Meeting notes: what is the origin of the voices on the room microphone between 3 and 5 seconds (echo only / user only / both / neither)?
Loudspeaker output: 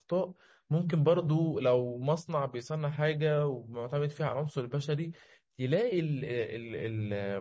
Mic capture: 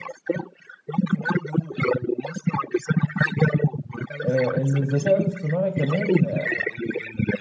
both